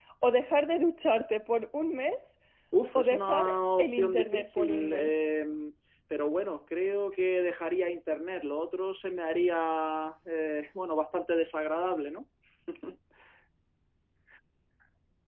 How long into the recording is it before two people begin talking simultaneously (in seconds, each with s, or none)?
3.0 s